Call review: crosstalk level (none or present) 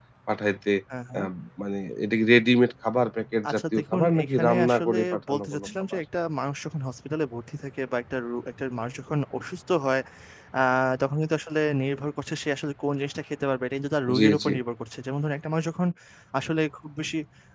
present